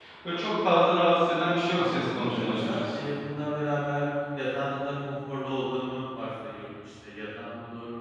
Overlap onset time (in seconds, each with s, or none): 1.7 s